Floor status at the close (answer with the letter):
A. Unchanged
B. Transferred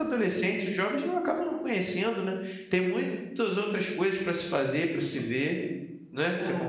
B